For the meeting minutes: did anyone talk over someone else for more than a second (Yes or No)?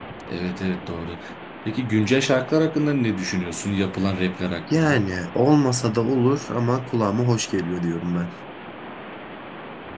No